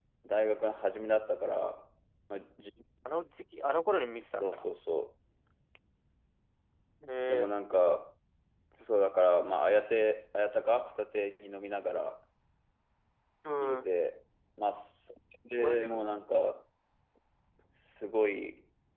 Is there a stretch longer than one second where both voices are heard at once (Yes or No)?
No